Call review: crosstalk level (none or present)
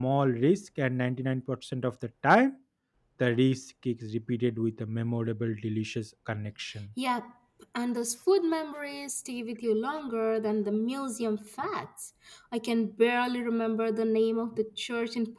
none